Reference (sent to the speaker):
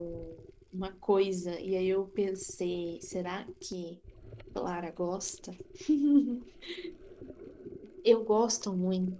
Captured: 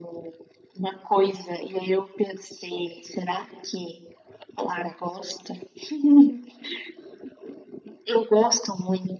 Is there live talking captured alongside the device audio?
No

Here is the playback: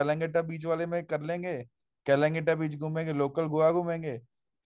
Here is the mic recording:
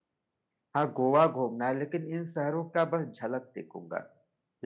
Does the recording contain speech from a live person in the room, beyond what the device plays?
Yes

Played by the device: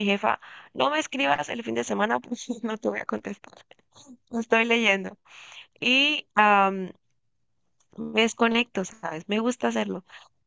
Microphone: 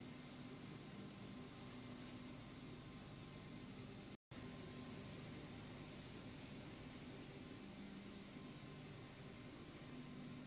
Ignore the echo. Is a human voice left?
No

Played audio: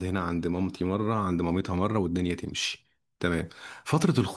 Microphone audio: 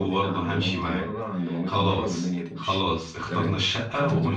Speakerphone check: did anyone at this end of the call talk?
Yes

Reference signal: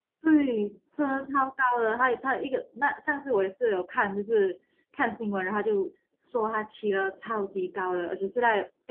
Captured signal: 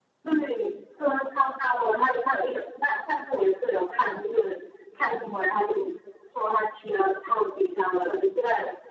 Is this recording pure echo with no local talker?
Yes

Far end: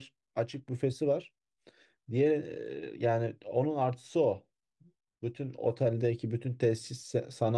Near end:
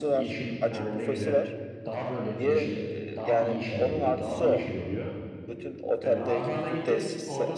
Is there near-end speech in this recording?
Yes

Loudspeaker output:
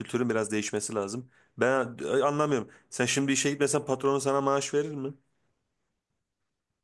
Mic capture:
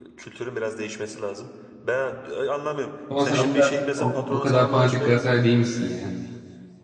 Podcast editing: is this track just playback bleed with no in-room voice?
No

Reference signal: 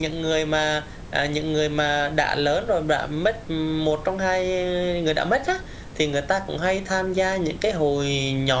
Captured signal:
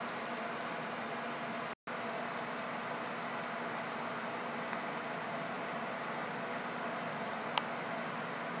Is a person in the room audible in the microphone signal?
No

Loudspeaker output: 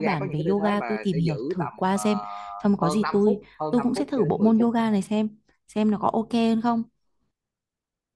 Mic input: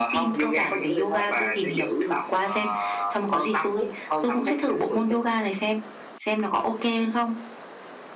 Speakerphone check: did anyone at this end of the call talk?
No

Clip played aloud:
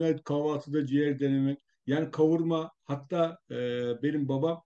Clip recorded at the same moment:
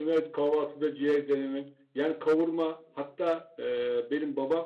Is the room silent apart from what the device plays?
Yes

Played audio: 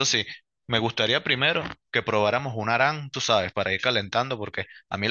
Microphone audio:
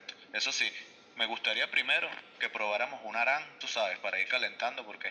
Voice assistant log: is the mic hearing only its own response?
Yes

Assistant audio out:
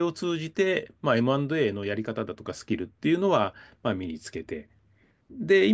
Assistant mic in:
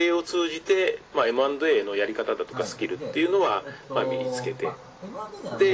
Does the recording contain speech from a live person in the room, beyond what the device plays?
Yes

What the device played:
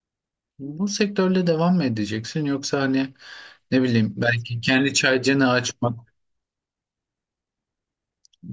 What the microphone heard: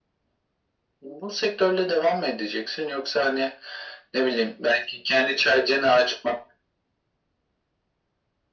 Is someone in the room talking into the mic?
No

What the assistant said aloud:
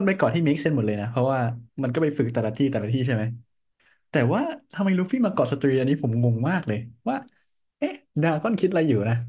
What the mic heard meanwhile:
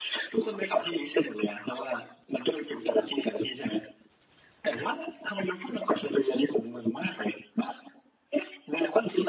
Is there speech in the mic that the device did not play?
No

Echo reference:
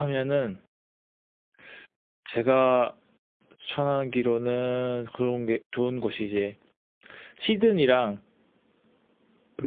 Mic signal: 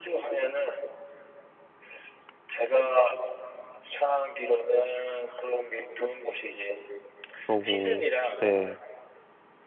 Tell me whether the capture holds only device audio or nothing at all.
No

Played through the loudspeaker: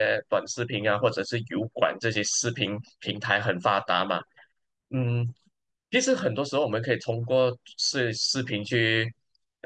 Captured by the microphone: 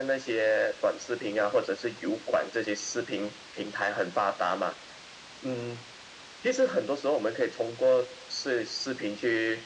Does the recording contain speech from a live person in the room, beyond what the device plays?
No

